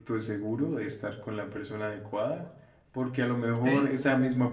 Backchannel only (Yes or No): Yes